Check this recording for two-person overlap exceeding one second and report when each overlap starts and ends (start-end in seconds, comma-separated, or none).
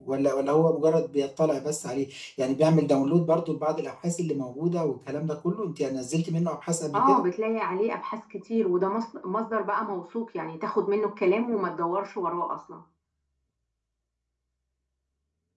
none